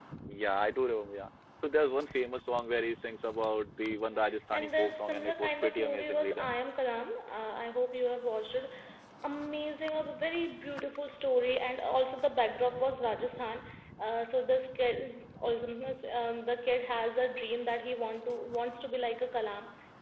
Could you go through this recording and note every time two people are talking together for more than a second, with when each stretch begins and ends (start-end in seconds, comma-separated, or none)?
4.1-6.5